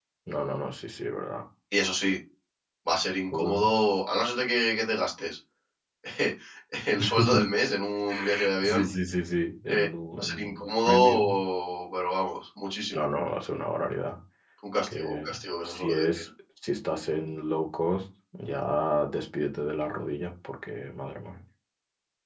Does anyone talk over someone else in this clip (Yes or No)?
Yes